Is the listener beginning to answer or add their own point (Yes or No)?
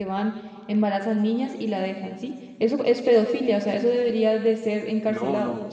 Yes